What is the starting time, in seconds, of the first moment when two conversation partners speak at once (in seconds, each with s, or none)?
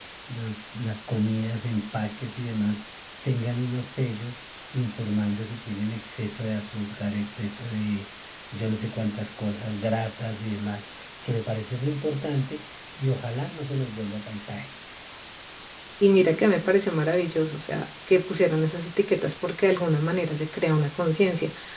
none